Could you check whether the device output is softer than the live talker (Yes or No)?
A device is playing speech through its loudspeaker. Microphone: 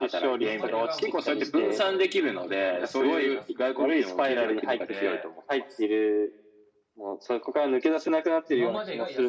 No